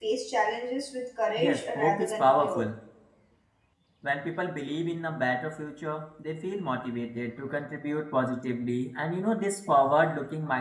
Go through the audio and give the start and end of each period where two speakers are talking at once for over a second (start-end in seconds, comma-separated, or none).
1.4-2.6